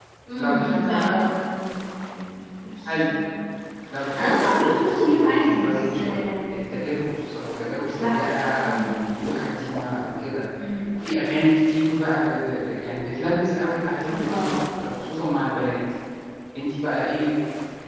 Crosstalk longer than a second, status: present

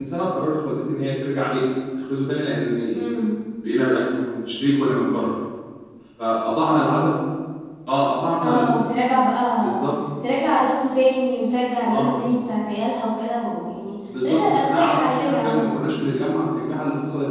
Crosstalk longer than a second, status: present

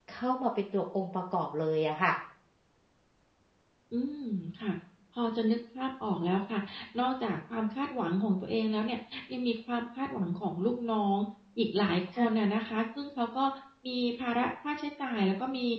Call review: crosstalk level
none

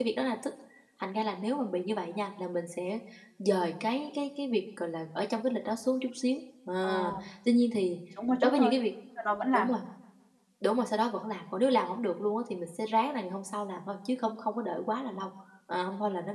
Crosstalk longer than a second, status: none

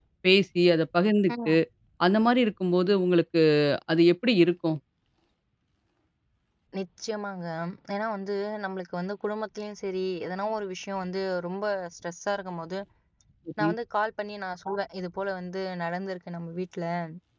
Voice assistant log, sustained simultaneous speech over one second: none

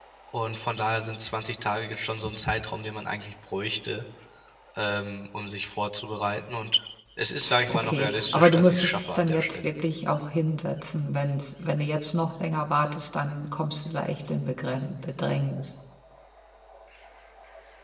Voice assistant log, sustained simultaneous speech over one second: present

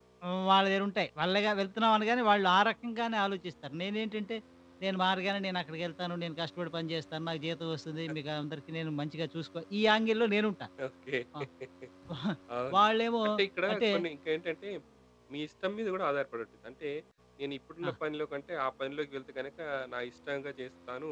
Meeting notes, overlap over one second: none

